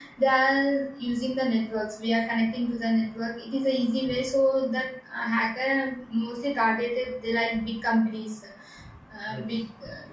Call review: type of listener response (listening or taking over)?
taking over